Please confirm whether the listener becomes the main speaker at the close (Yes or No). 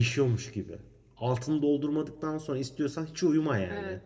No